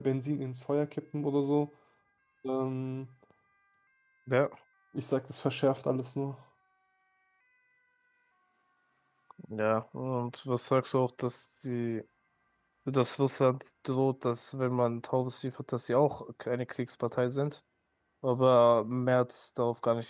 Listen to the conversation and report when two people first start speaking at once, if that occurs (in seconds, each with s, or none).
none